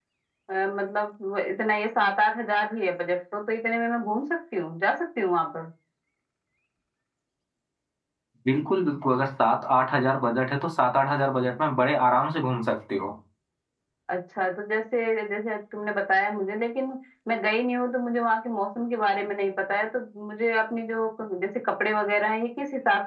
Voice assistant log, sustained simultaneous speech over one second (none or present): none